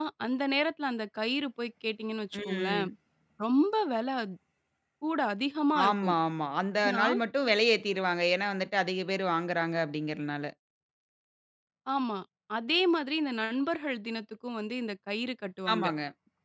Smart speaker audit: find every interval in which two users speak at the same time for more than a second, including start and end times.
none

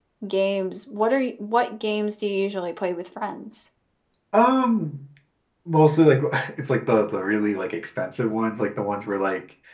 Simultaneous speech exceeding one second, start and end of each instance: none

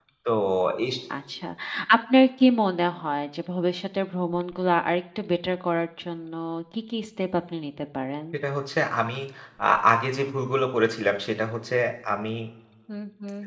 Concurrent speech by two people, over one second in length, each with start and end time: none

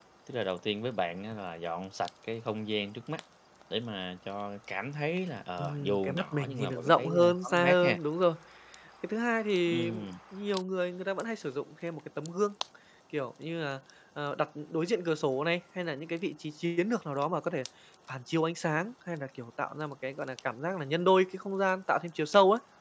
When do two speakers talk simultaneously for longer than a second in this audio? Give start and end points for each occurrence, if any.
5.6-8.0

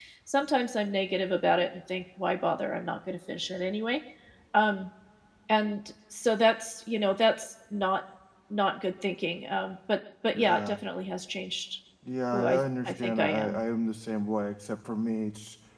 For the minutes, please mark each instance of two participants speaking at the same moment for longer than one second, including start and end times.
12.3-13.6

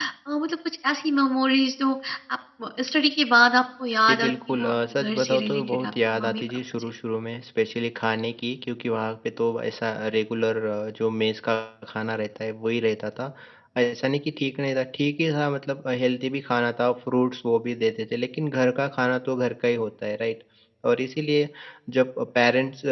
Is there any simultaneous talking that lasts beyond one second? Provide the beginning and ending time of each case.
4.0-6.9

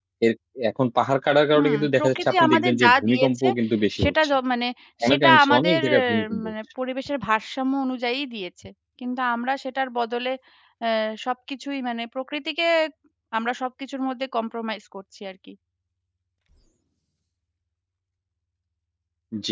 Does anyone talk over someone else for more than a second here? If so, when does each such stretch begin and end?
1.6-3.5, 5.1-6.5

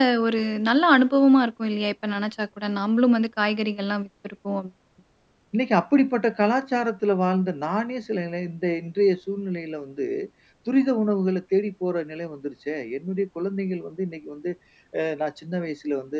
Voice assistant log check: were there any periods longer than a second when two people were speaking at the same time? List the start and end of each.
none

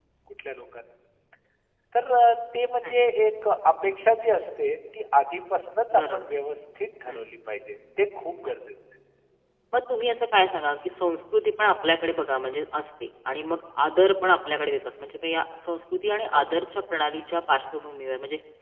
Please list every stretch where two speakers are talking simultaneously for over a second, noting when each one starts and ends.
none

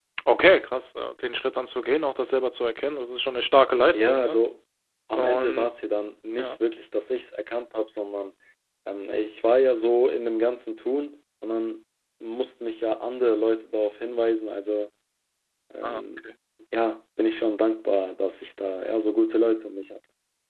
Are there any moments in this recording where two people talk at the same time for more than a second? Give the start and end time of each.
none

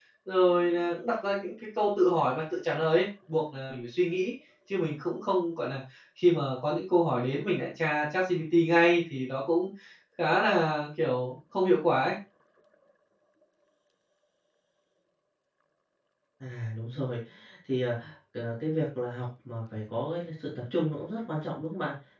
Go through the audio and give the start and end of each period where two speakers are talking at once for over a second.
none

